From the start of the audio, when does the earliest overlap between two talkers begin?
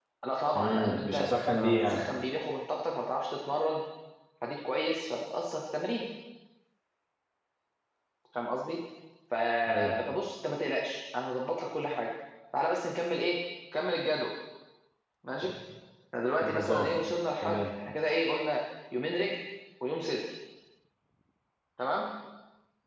1 s

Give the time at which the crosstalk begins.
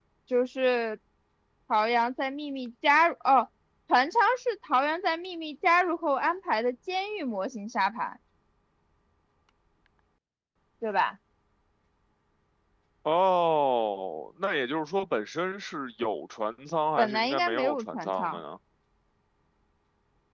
17 s

